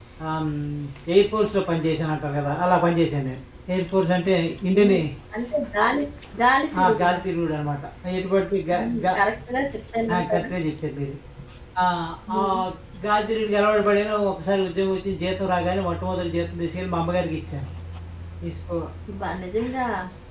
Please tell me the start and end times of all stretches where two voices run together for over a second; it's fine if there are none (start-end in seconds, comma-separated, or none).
none